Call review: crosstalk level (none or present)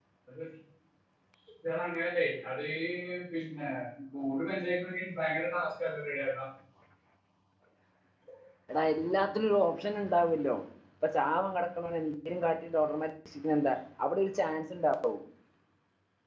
none